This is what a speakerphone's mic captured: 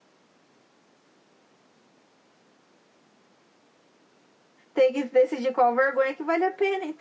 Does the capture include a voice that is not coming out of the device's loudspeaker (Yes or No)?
Yes